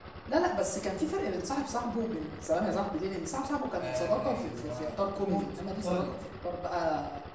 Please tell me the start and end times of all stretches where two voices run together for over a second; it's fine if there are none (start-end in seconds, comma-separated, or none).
3.8-6.2